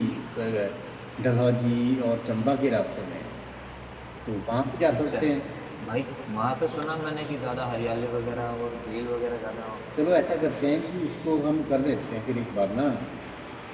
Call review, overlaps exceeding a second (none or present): none